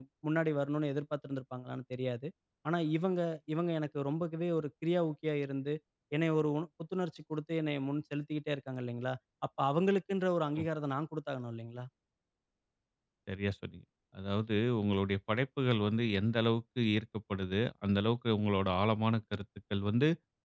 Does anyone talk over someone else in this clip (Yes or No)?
No